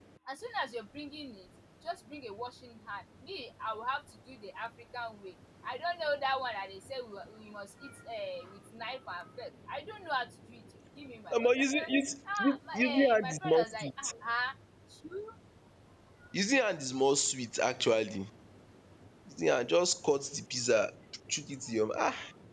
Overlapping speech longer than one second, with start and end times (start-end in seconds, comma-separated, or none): 12.5-13.9